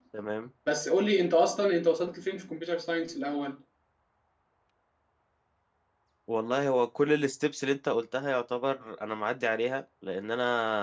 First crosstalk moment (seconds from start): none

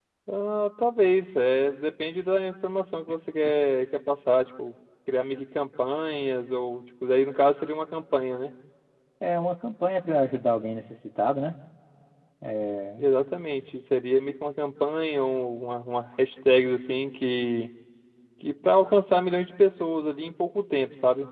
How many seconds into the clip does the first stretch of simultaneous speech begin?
none

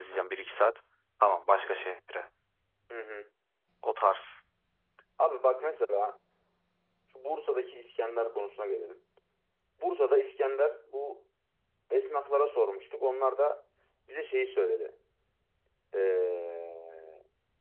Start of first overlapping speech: none

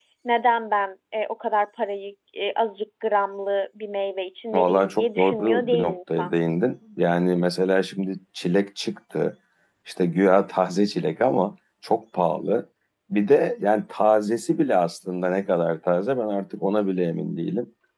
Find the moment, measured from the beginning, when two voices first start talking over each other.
4.5 s

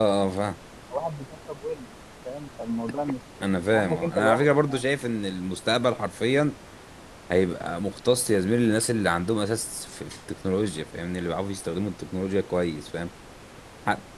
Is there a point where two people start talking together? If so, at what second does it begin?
3.4 s

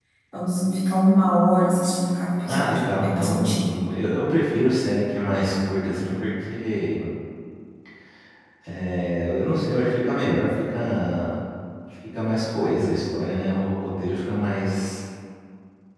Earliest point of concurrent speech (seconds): 2.5 s

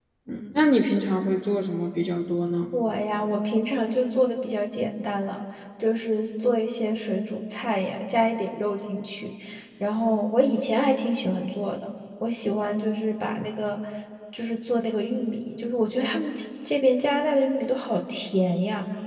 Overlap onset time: none

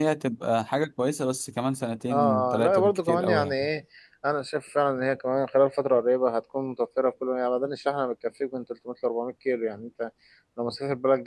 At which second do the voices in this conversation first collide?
2.1 s

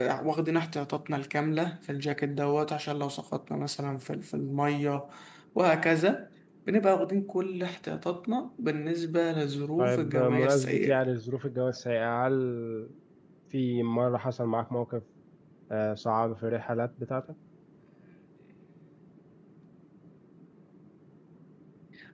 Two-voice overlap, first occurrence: 9.8 s

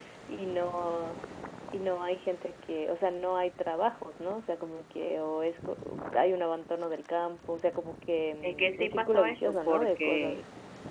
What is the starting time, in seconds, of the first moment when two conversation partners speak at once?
8.4 s

